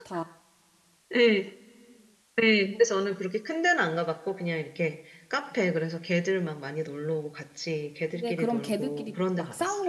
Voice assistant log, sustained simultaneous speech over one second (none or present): present